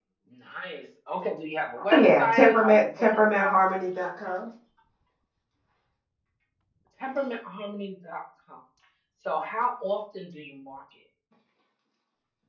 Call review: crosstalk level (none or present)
present